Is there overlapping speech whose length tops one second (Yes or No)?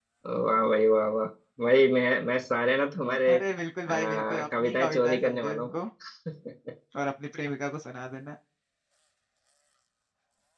Yes